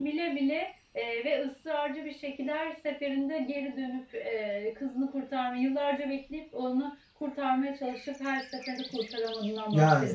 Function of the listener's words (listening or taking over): taking over